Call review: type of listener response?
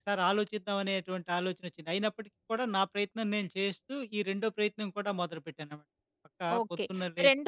taking over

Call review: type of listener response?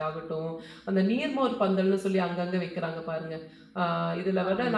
listening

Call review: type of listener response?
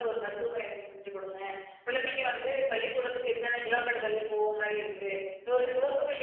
listening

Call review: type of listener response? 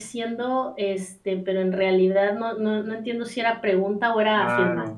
taking over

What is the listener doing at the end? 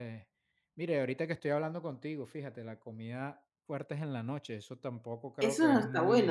taking over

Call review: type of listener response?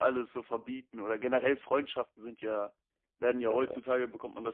listening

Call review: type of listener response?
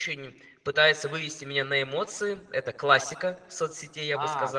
taking over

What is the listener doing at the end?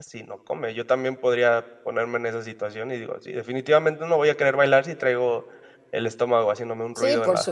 taking over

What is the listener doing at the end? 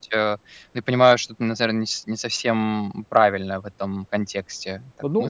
taking over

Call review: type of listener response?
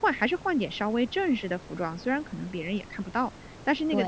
listening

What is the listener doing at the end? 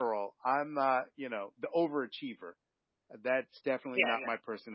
listening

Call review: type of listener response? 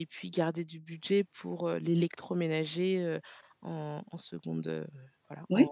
taking over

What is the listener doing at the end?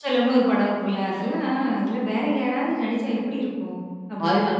taking over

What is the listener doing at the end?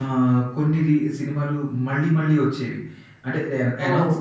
listening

